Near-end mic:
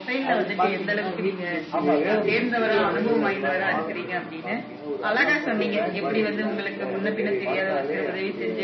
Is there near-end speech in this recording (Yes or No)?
Yes